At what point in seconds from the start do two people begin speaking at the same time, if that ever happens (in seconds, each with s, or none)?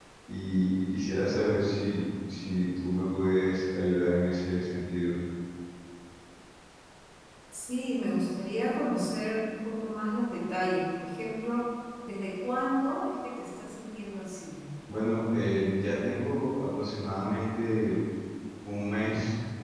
none